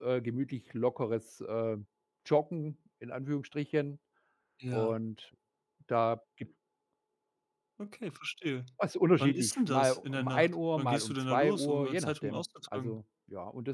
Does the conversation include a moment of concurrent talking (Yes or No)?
Yes